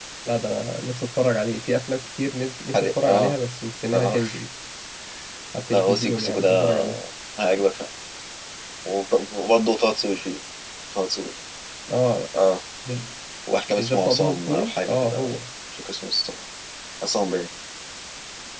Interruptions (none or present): present